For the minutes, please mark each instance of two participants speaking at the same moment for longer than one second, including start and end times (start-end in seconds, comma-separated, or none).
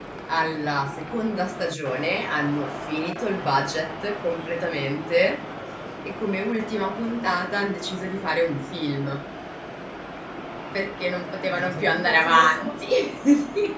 11.4-12.9